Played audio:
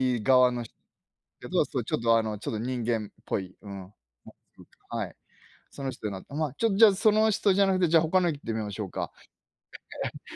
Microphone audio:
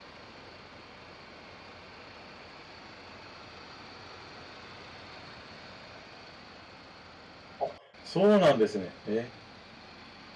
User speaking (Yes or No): Yes